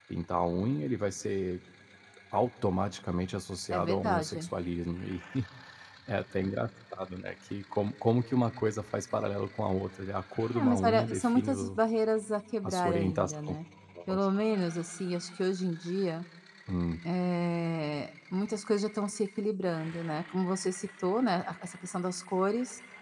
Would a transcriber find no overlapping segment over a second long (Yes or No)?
No